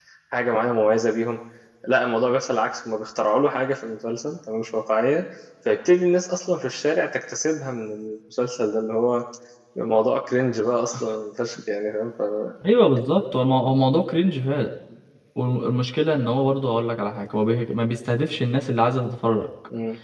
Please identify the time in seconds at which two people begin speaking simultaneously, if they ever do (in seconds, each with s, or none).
none